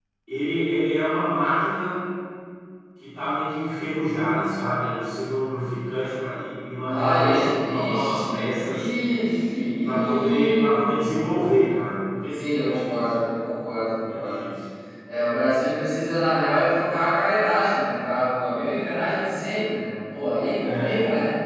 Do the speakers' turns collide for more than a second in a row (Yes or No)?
Yes